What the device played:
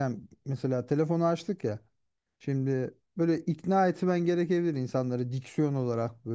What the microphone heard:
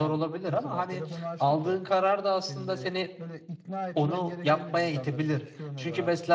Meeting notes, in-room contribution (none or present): present